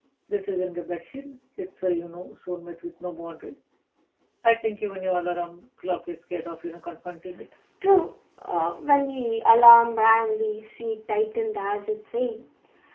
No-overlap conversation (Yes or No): Yes